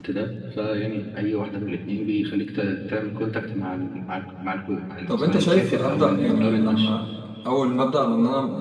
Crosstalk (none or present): present